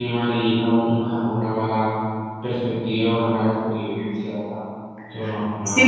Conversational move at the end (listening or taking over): taking over